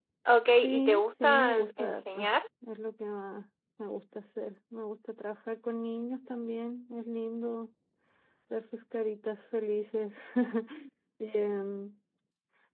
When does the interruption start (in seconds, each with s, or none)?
0.6 s